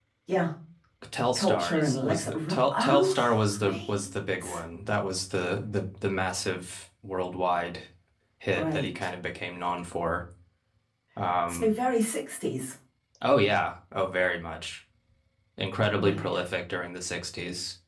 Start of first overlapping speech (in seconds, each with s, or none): 1.4 s